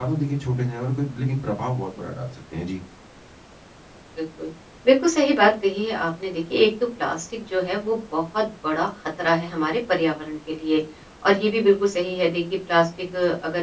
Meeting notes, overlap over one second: none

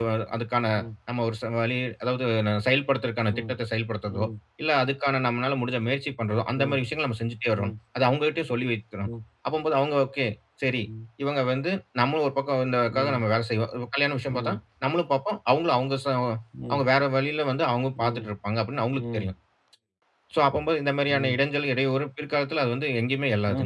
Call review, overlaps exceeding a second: none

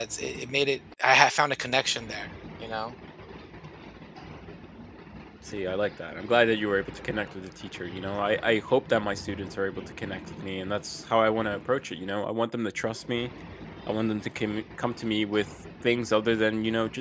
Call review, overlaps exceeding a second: none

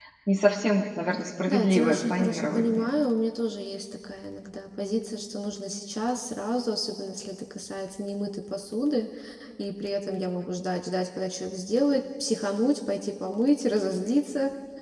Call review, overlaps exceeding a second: present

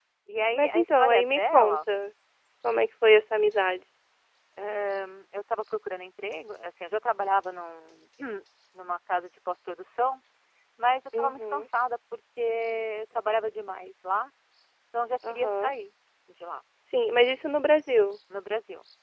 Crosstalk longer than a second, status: present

